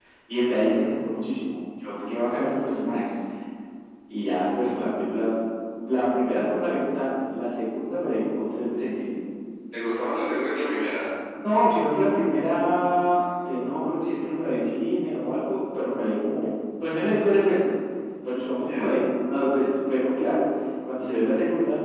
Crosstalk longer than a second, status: present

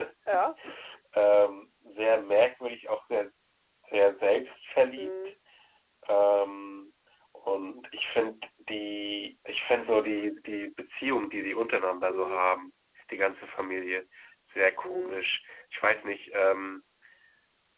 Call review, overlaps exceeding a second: none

